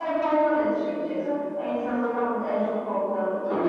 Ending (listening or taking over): taking over